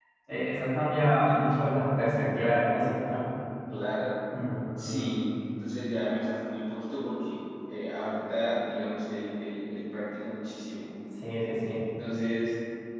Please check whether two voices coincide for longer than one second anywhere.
No

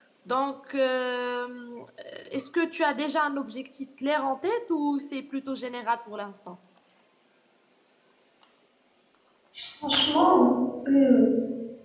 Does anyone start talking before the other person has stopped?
No

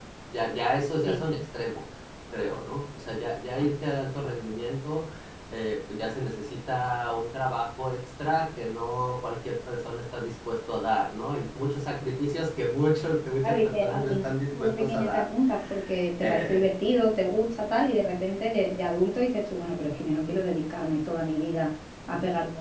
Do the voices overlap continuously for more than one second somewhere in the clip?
Yes, from 13.4 s

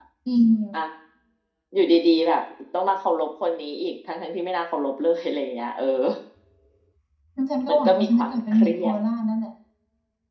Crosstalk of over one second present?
Yes, from 7.7 s

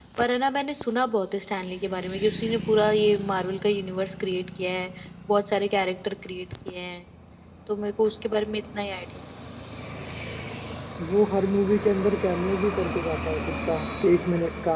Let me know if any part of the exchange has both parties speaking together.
No

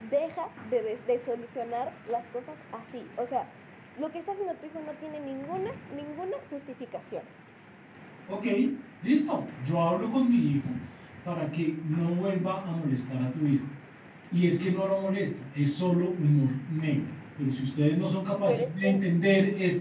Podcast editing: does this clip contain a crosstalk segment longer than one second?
No

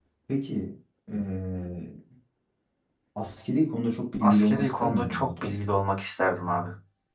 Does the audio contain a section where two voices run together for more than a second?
Yes, from 4.2 s

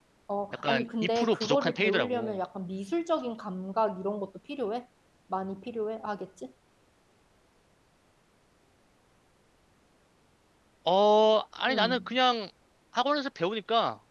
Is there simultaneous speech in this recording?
Yes, from 0.6 s

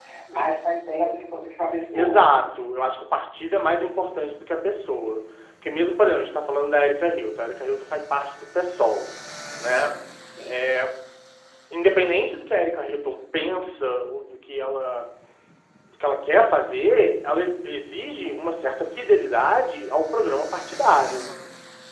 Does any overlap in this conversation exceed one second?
No

